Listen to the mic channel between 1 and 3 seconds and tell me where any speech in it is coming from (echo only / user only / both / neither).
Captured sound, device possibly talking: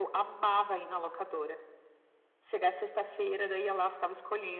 echo only